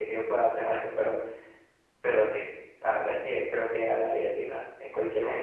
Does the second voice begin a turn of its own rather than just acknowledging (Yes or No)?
Yes